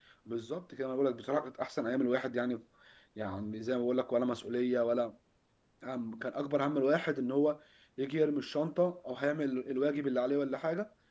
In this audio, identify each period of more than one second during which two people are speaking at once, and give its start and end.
none

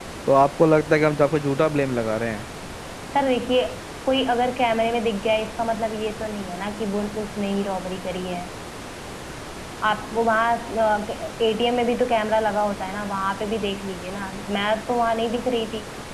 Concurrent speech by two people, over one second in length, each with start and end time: none

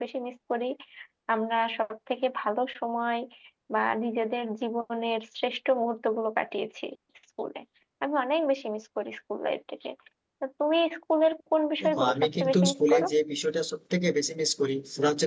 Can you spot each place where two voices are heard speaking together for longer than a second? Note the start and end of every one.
11.8-13.1

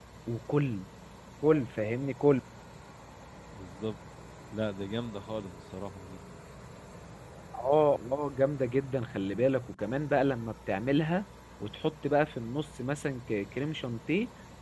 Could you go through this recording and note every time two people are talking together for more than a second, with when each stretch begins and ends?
none

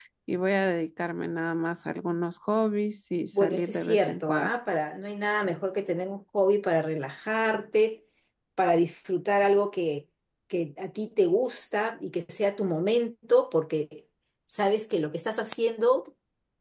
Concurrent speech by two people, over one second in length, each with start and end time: 3.3-4.5

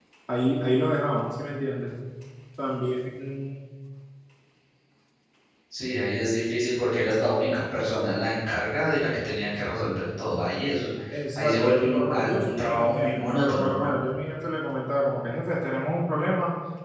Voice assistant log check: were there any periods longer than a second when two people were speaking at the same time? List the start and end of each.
11.3-13.9

